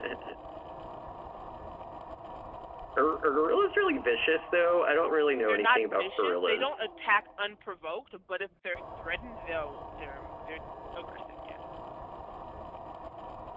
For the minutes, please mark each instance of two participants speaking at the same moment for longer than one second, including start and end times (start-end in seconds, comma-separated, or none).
5.5-6.8